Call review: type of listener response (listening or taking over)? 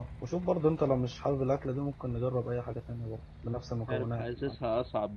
taking over